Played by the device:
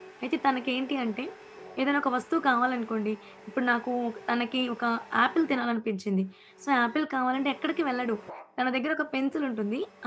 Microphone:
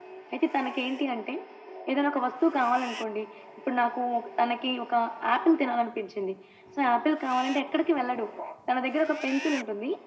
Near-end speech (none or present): none